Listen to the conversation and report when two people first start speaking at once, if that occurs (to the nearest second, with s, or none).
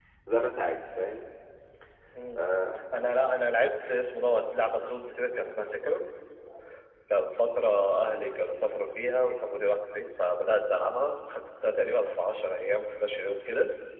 none